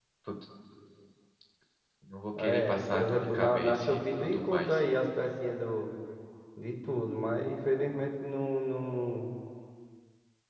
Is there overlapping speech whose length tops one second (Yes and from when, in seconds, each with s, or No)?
Yes, from 2.4 s